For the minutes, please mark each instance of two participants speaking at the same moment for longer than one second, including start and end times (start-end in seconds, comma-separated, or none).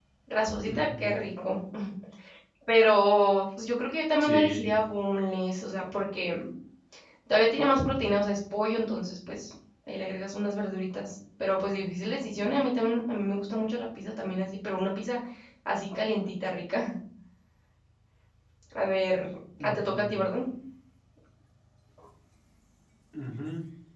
none